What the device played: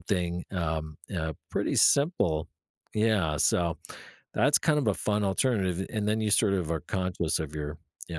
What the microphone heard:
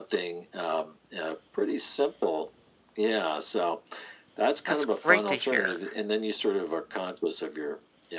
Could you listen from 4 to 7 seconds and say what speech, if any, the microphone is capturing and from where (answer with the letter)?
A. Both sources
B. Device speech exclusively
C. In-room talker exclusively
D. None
A